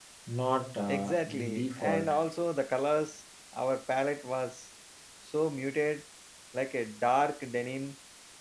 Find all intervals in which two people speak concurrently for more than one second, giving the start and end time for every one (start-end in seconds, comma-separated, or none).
0.9-2.1